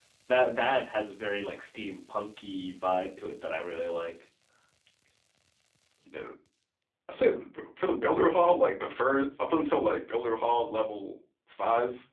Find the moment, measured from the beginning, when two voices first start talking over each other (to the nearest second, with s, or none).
none